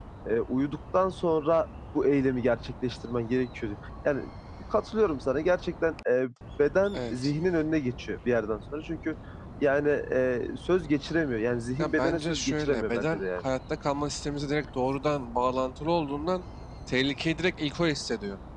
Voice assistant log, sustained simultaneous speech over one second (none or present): present